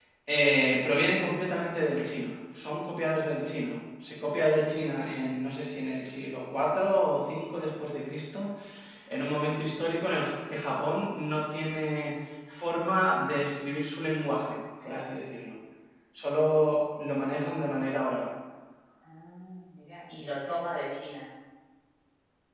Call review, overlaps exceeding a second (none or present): none